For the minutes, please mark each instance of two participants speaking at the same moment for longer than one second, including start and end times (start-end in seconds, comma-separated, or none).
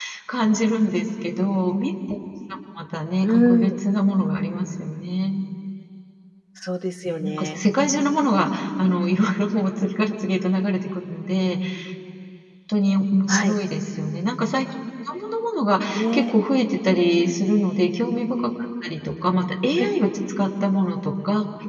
none